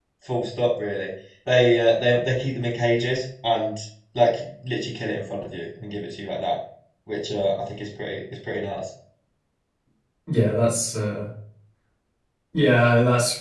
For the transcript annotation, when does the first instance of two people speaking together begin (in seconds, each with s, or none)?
none